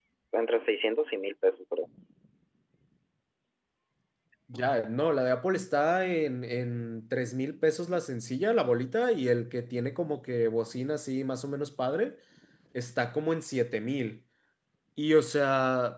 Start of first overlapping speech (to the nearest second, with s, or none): none